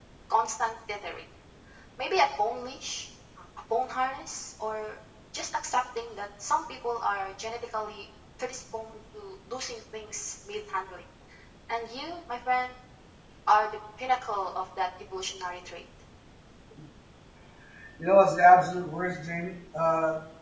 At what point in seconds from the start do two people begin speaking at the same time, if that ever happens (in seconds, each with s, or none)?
none